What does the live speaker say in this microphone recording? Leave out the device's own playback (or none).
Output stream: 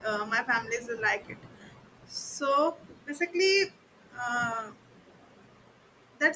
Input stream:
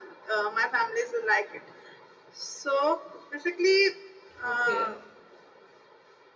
Okay,